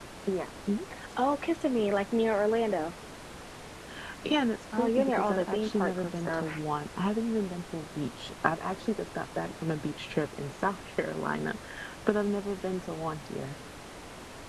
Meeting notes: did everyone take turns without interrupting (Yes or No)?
No